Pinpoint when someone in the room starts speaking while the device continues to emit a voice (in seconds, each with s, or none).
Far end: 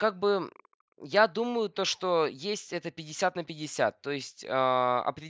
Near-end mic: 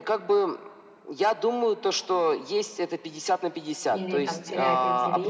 3.9 s